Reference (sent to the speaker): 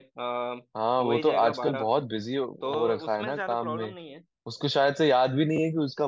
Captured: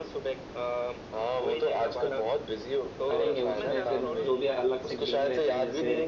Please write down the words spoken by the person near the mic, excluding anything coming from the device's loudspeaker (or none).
करेंगे उसमें फिर जो भी अलग से गेम रहते हैं जैसे